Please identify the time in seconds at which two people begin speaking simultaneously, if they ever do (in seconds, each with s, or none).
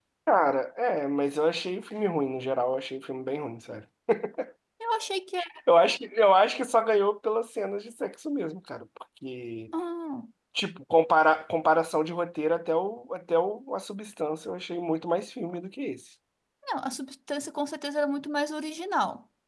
none